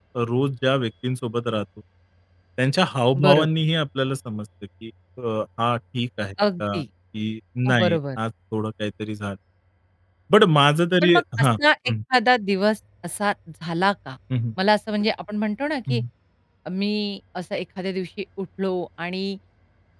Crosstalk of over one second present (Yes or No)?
No